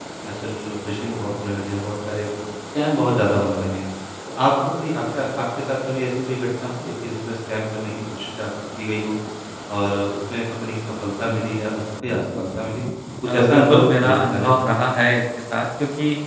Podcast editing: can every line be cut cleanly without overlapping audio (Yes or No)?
No